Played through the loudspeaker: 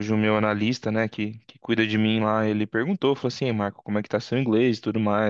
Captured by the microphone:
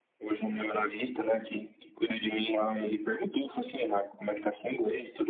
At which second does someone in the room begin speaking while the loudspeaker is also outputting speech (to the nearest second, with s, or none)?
none